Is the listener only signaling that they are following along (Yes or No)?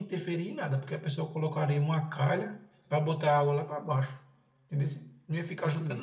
No